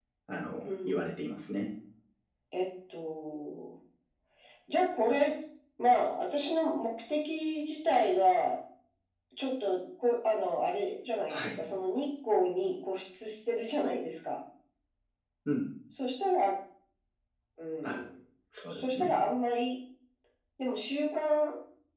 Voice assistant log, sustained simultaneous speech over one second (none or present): none